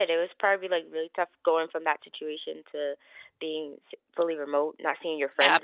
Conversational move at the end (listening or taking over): taking over